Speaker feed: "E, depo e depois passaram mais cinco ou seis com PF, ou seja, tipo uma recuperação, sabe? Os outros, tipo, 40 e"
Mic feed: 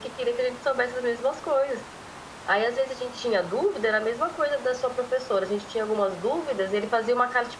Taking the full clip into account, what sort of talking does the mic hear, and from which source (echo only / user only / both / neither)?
user only